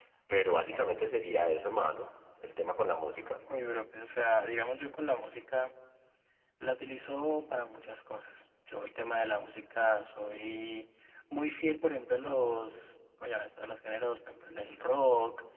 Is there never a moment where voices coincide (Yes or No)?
Yes